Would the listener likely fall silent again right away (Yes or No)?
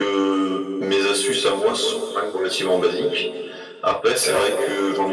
Yes